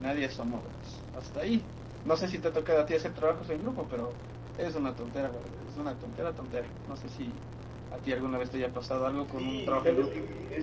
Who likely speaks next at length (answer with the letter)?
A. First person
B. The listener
B